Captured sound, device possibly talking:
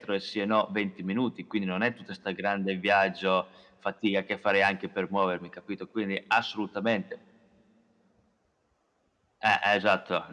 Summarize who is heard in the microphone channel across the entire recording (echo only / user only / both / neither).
echo only